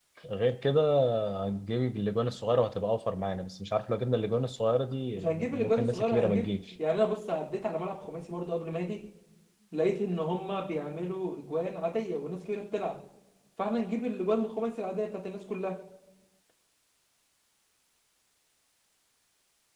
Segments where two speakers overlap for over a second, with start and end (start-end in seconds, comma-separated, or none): 5.2-6.7